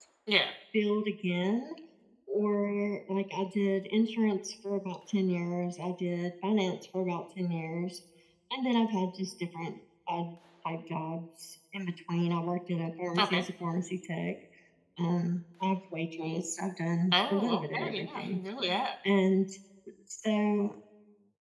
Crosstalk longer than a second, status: present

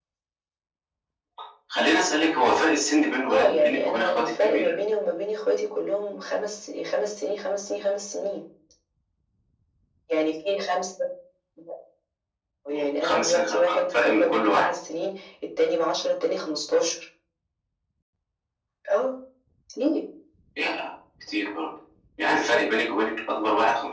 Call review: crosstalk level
present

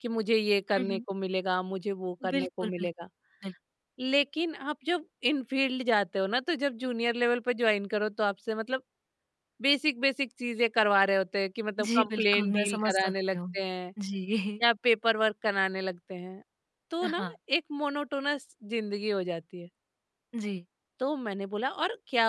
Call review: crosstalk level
present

